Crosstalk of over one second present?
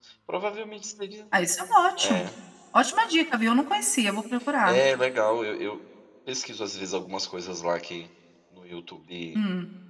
No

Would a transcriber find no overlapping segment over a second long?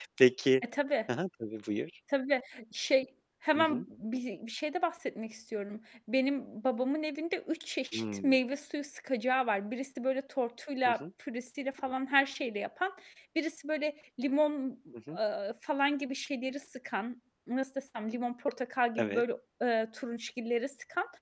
Yes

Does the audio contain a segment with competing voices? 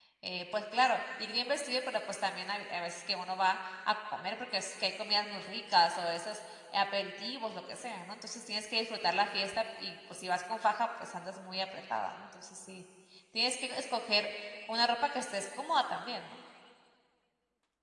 No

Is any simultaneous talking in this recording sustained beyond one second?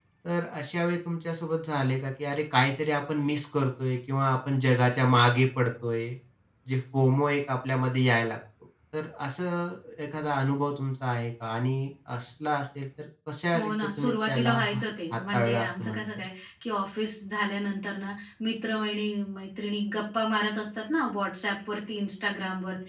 Yes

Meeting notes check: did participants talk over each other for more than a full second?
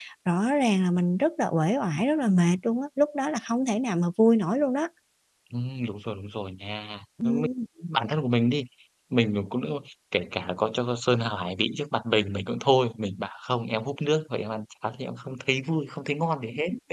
No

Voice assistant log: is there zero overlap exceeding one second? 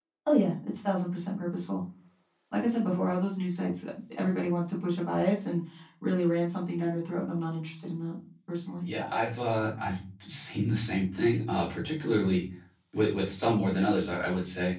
Yes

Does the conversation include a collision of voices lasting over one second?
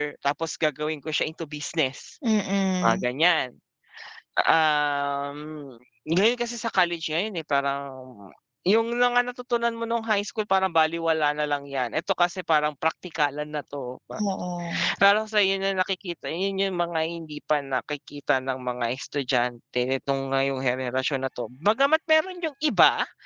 No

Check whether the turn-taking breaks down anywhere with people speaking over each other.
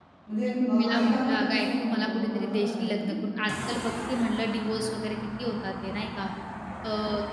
Yes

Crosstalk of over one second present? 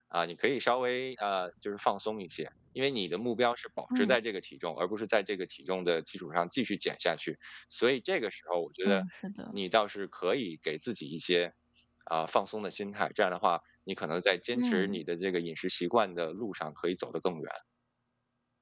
No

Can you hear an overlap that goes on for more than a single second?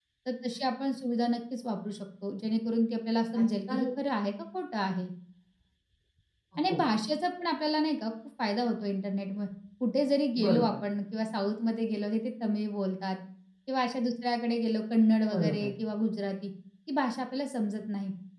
No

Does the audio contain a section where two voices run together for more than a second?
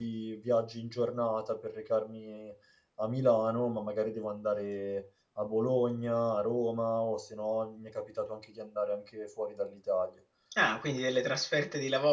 No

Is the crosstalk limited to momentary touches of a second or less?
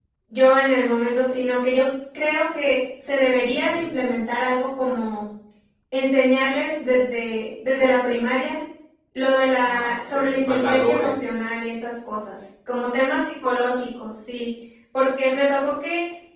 No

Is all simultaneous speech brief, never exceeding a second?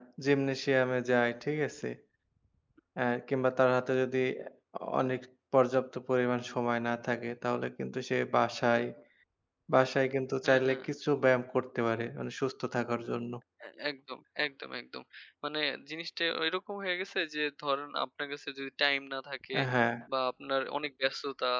Yes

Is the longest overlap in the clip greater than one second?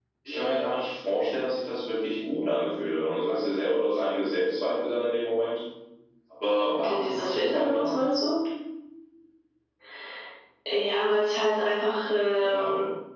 Yes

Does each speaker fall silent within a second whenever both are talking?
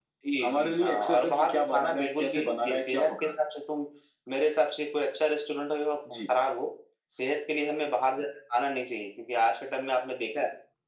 No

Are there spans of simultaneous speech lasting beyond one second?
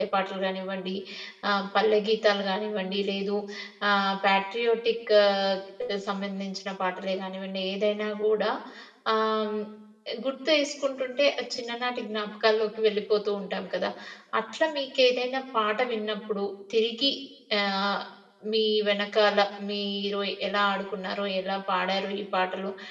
No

